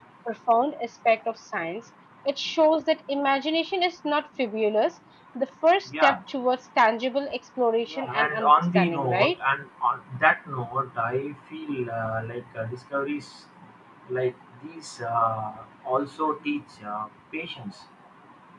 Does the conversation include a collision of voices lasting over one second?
Yes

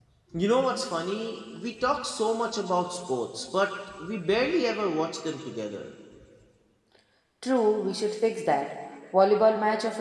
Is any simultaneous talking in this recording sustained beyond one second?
No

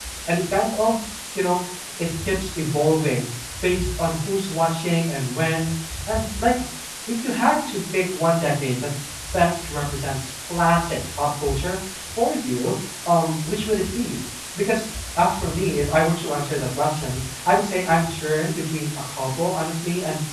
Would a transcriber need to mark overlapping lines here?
No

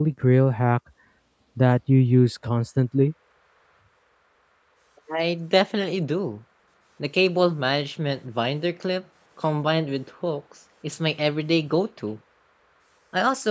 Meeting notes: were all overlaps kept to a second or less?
Yes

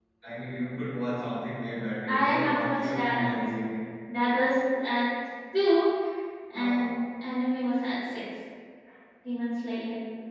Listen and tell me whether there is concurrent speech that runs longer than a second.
Yes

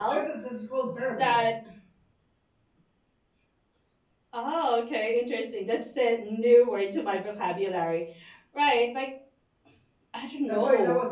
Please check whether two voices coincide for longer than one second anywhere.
No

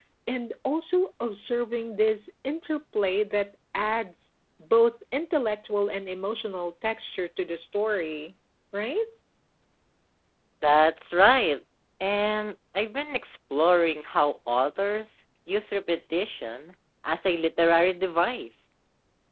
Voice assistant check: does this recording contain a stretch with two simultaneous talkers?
No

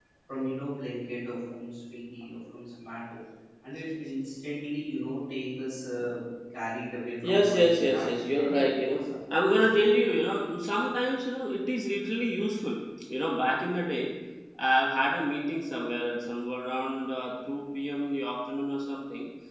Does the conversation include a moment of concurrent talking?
Yes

